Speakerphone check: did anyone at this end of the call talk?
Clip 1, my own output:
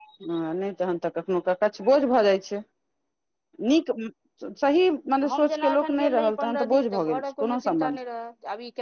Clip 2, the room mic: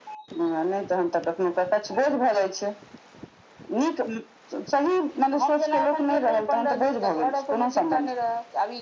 No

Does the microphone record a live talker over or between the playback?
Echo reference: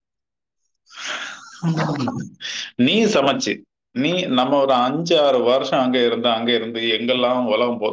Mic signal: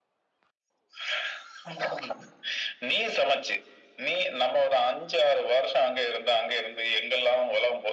No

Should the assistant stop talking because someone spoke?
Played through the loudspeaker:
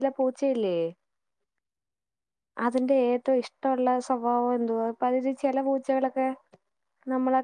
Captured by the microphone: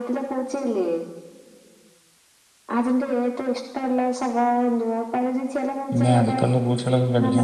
Yes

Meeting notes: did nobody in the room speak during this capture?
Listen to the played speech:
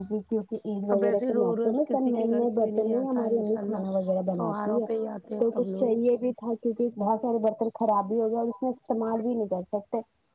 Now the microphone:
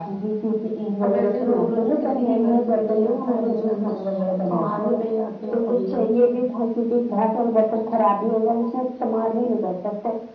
Yes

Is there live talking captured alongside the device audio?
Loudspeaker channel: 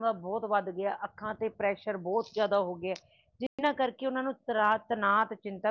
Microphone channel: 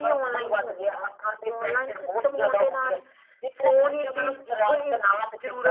Yes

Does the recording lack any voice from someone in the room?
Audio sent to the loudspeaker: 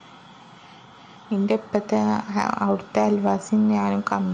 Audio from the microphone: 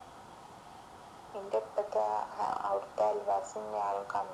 Yes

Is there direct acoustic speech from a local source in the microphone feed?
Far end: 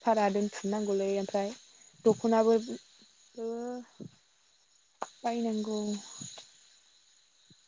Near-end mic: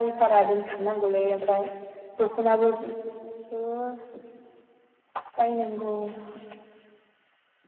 No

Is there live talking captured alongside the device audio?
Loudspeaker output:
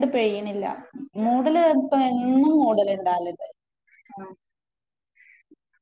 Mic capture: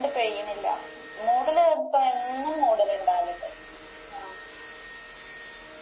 No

